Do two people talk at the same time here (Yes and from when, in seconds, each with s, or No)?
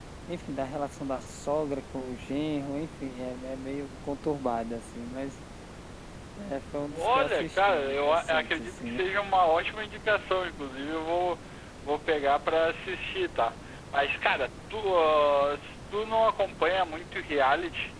Yes, from 6.9 s